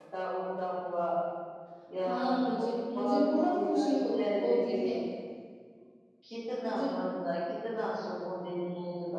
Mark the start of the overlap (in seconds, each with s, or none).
2.0 s